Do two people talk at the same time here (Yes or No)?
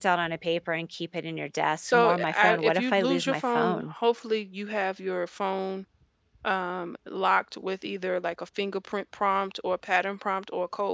Yes